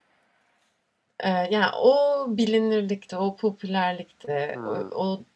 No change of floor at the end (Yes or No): Yes